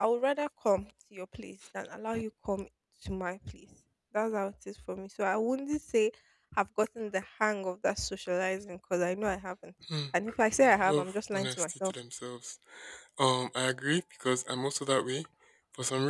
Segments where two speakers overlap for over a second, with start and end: 10.6-11.9

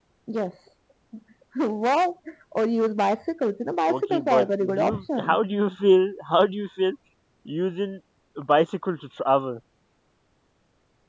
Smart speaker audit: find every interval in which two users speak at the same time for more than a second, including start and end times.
3.9-5.4

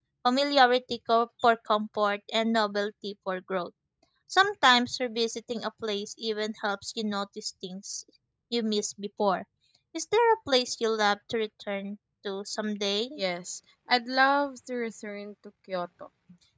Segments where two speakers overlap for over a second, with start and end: none

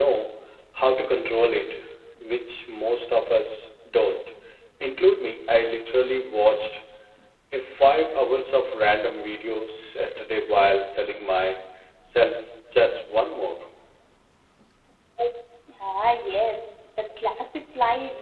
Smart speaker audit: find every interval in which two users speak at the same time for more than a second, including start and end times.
none

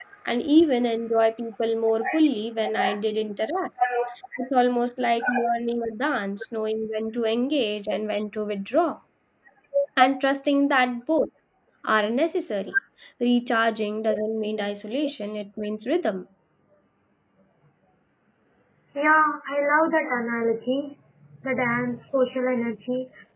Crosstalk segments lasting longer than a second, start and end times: none

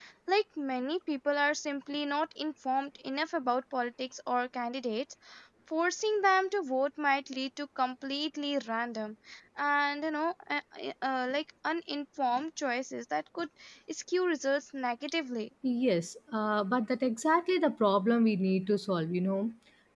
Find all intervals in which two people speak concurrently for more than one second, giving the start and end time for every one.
none

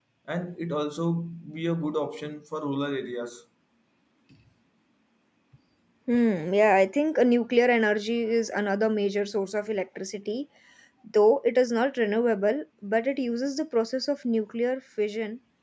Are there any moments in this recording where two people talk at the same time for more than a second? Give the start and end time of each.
none

